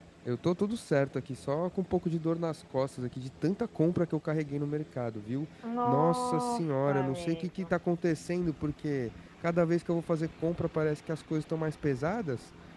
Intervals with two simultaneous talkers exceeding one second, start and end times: 5.8-7.7

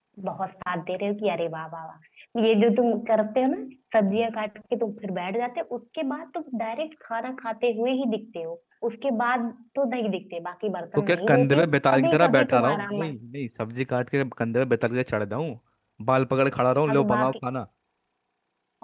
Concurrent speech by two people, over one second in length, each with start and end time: 11.0-13.2

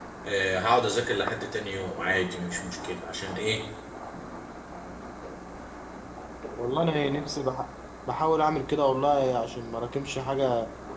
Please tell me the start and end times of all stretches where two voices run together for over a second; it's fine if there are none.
none

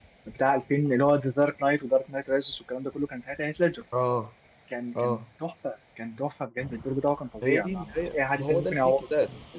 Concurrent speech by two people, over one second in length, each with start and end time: 7.4-8.9

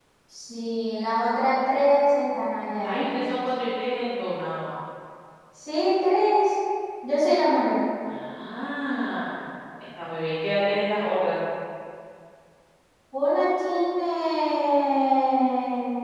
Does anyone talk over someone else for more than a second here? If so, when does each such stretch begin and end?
none

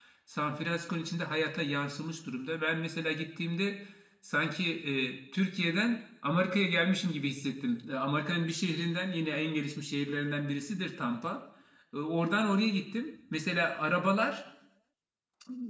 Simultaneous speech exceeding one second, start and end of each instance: none

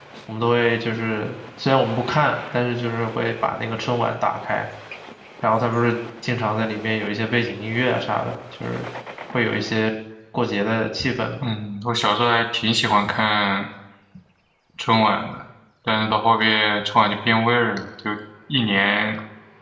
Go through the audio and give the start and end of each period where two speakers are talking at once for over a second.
none

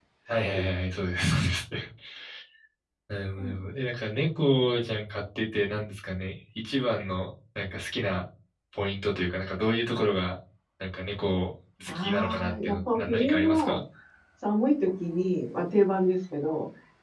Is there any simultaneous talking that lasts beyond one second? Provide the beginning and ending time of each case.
11.9-13.8

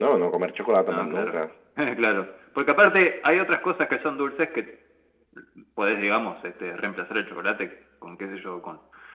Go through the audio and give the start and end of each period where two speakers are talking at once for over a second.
none

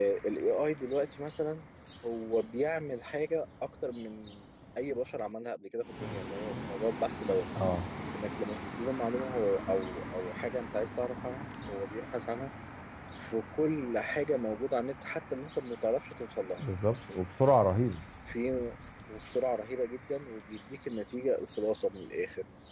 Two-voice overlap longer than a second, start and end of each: none

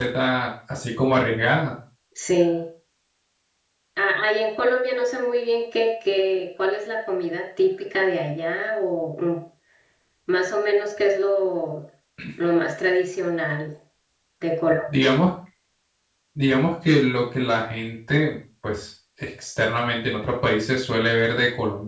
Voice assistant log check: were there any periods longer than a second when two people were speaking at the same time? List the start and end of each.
none

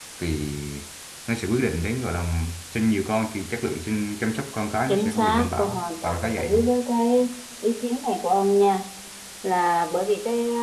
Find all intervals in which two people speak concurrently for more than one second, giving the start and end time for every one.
4.9-6.7

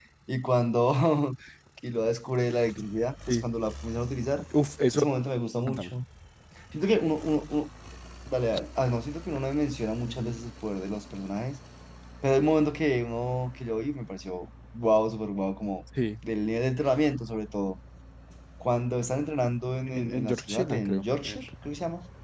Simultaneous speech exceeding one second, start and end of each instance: 19.9-21.4

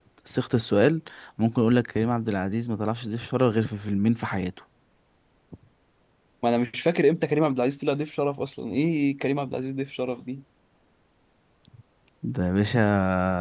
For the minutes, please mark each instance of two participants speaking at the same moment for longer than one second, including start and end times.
none

